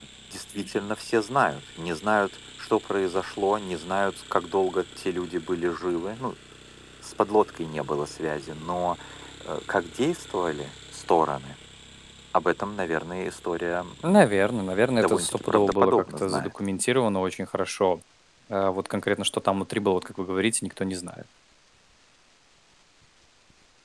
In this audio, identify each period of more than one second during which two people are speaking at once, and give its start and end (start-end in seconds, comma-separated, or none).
15.0-16.5